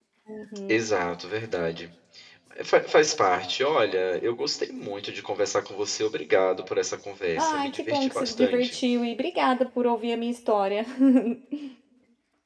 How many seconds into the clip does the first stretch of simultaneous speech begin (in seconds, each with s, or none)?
7.4 s